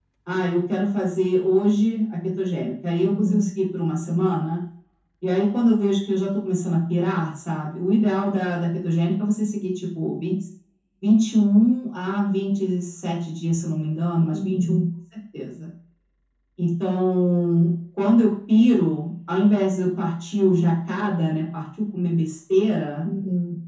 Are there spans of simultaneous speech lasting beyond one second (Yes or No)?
No